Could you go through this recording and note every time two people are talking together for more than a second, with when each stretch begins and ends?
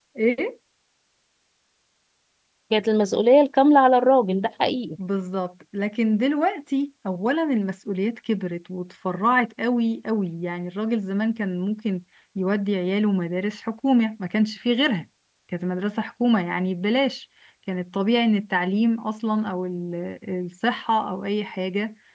none

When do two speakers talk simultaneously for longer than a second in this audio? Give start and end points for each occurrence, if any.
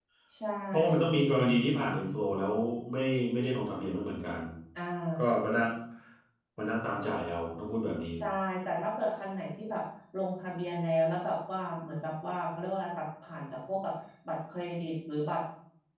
none

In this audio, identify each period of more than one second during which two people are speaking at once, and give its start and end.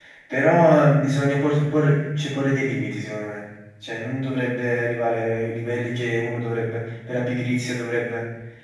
none

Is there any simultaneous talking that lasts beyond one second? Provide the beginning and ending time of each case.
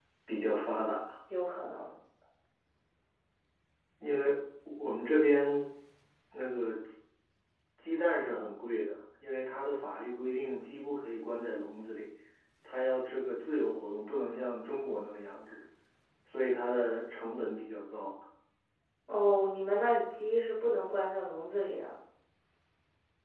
none

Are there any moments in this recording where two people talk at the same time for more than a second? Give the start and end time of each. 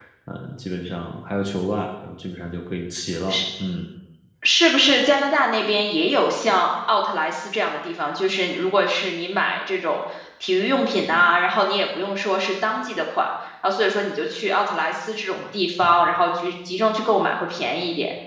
none

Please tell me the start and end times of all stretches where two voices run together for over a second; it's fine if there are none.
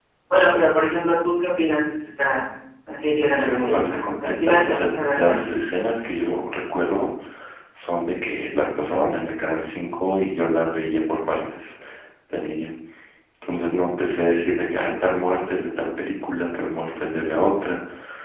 3.2-5.4

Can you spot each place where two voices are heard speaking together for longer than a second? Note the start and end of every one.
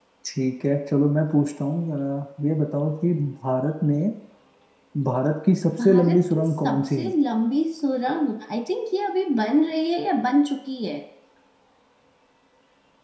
5.8-7.1

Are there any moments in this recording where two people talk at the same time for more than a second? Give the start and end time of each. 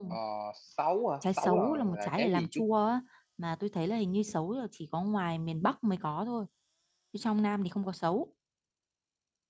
1.2-2.6

